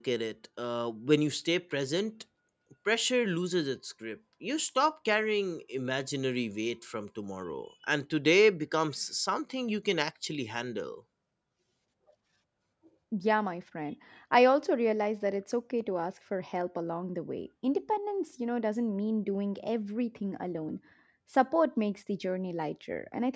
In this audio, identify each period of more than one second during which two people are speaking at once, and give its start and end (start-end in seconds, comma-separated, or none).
none